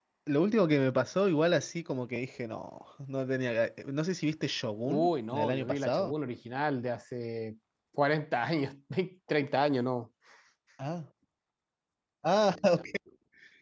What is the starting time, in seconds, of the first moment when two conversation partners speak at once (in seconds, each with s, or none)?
4.8 s